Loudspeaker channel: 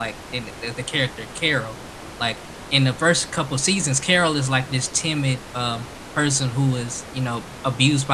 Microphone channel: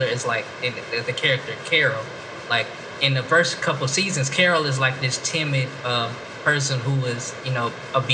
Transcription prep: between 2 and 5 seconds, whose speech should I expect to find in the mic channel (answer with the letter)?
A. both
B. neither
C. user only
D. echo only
D